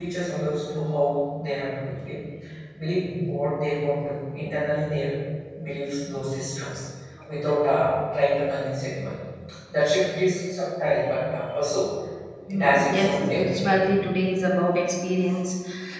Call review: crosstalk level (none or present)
present